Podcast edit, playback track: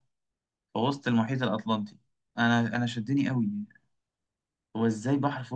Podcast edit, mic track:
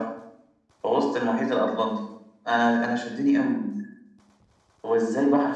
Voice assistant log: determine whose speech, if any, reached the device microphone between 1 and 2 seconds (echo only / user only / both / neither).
echo only